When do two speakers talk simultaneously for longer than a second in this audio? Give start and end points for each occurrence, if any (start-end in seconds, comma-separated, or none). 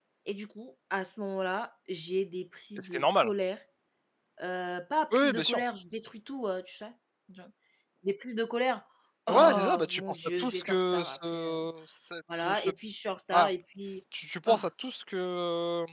9.3-11.7